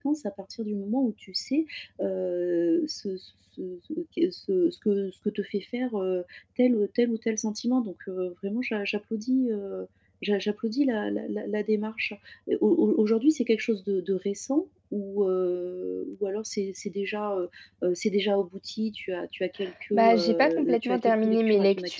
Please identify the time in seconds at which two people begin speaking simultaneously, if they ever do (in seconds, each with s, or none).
19.9 s